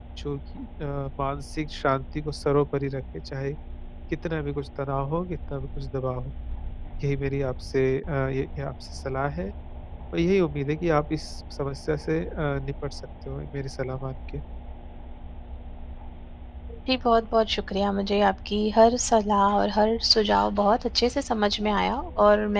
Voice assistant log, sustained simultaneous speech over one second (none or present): none